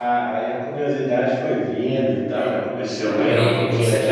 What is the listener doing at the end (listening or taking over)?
taking over